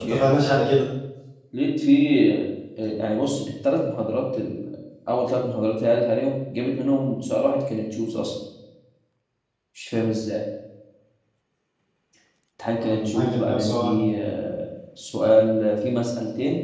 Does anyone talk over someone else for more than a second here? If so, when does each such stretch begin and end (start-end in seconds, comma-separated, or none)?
12.7-14.0